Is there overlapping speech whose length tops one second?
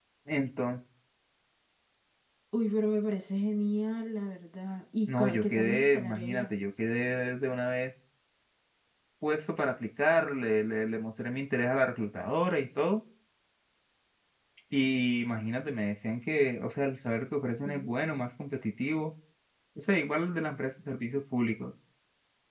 Yes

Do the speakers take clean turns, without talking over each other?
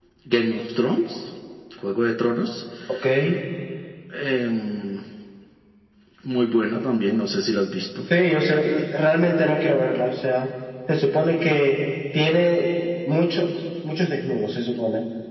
Yes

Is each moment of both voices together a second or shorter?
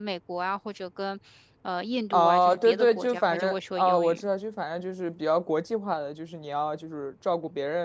No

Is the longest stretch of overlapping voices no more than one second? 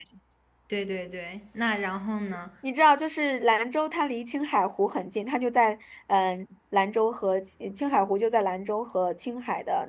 Yes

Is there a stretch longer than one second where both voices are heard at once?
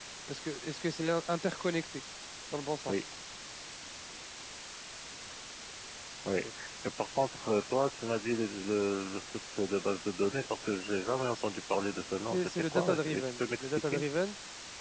Yes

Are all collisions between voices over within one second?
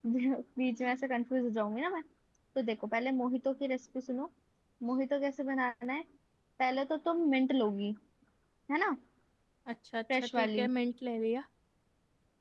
Yes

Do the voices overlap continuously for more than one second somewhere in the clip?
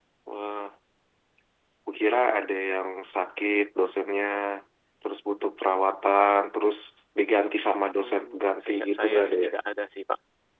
Yes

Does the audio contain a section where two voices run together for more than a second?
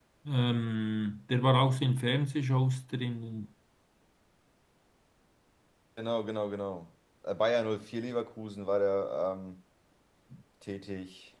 No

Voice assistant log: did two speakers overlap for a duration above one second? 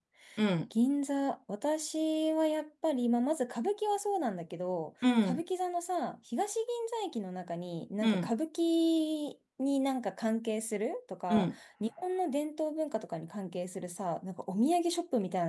No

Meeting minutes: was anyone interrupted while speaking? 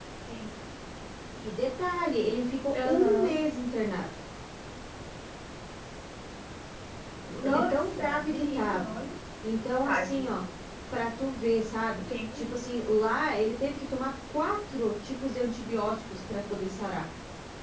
Yes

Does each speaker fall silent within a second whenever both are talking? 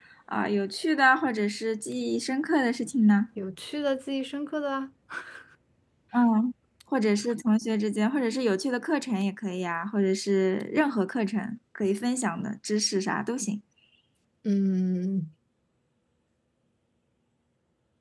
Yes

